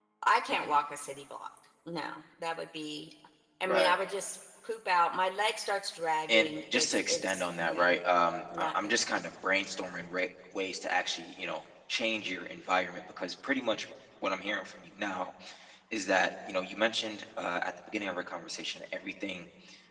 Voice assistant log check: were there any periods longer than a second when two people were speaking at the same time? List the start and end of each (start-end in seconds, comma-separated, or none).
6.3-7.9